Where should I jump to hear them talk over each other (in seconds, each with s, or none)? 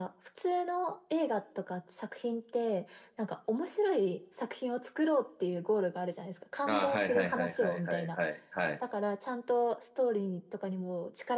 6.7 s